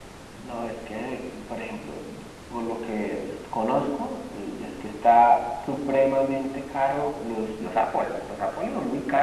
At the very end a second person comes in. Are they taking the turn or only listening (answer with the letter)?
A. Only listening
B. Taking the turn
A